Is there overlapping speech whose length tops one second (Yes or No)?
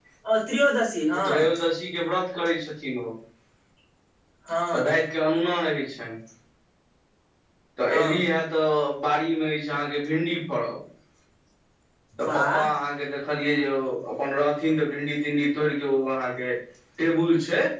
No